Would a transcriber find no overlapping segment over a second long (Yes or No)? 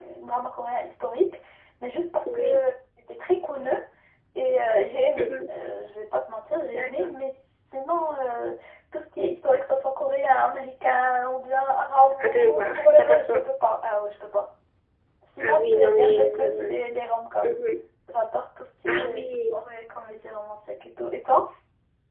No